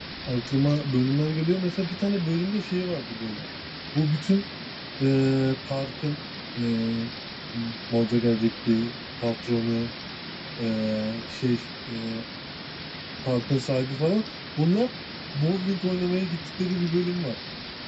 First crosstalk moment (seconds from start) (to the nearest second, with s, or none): none